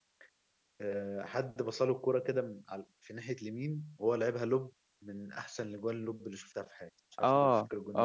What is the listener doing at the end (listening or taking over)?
taking over